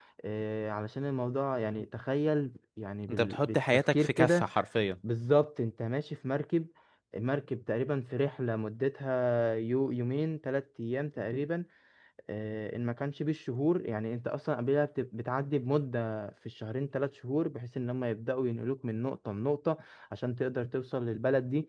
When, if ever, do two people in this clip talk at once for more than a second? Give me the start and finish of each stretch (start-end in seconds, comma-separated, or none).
3.1-4.4